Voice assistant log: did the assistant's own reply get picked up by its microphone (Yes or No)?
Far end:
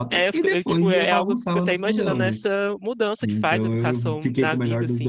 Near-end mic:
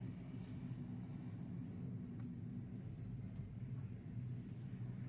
No